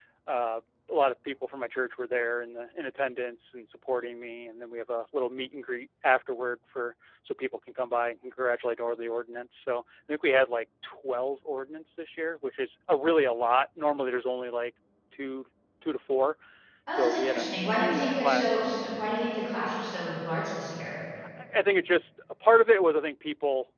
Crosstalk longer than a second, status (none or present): present